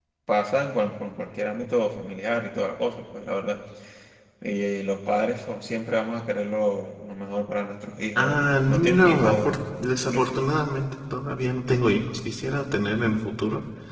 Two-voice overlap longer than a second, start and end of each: 8.2-9.6

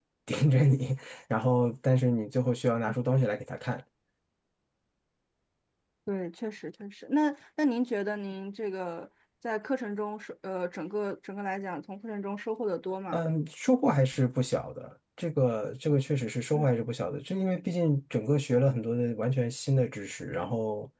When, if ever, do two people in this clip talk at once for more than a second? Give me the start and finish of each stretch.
none

